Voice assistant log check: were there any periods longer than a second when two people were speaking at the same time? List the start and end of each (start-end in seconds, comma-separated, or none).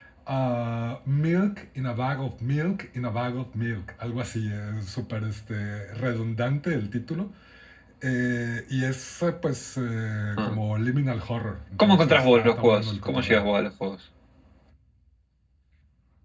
11.8-13.4